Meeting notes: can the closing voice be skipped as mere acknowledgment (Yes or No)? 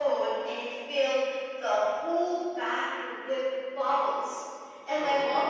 Yes